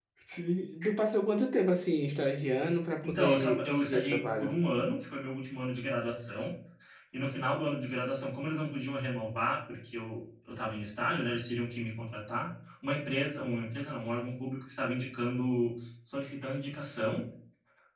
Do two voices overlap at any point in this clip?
Yes, from 3.0 s

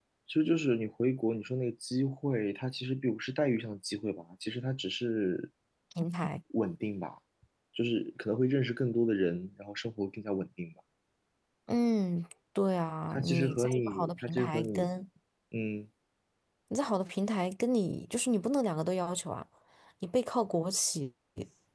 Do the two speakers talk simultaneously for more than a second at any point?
Yes, from 13.1 s

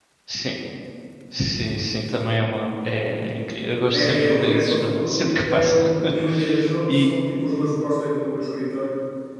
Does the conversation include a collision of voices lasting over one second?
Yes, from 3.9 s

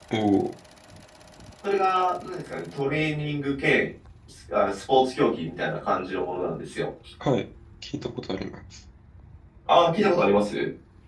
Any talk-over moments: No

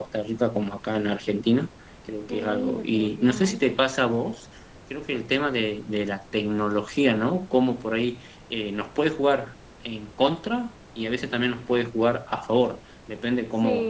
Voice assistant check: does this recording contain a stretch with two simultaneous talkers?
Yes, from 2.3 s

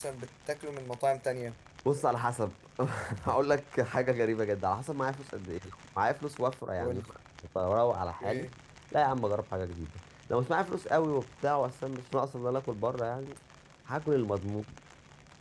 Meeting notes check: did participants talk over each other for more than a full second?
No

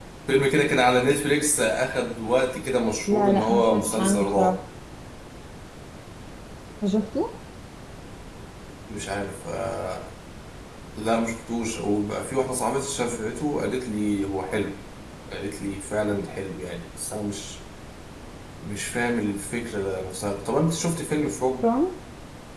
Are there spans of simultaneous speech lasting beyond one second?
Yes, from 3.1 s

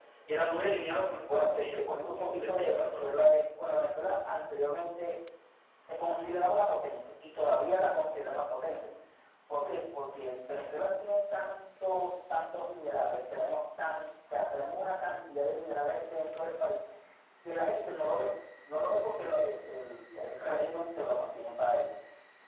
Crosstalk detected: Yes, from 1.3 s

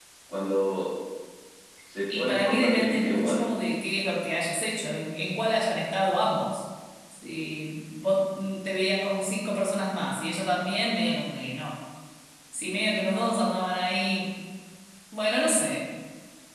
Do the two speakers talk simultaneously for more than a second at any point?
Yes, from 2.1 s

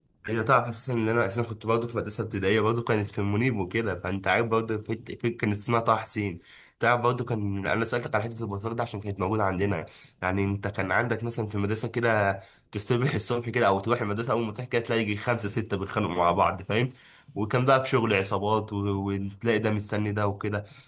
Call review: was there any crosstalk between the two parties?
No

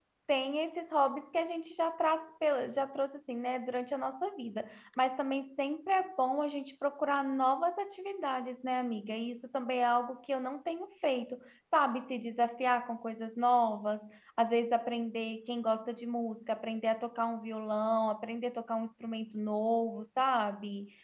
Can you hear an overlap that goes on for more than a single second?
No

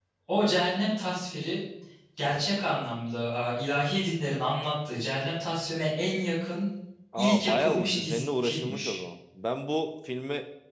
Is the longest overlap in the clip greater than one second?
Yes, from 7.2 s

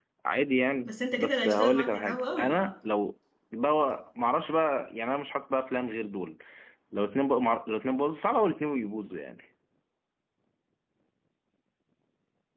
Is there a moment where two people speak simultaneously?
Yes, from 0.8 s

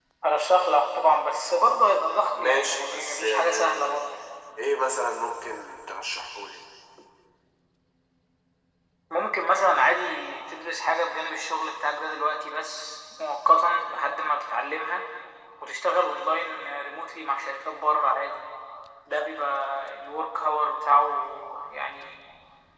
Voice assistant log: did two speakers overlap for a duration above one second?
Yes, from 2.3 s

